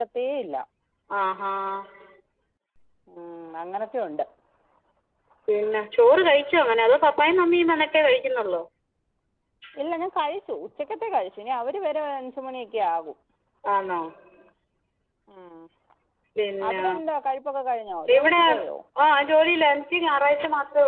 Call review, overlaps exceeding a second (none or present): none